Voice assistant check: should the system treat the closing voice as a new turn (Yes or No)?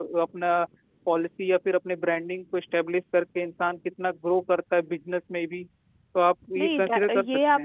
Yes